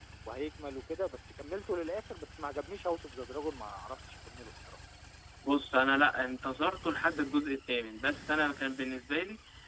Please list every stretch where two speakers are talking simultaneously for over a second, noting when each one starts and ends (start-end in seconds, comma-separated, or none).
none